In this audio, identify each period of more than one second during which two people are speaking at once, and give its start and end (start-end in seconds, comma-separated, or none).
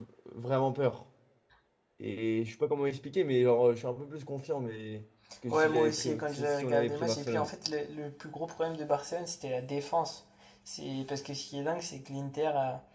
5.5-7.5